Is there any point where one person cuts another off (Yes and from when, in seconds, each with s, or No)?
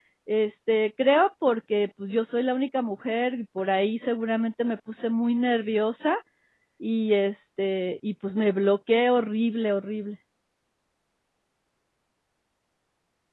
No